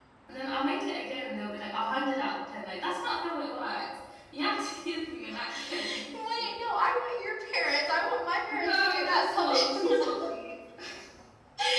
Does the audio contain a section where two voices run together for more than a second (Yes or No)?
Yes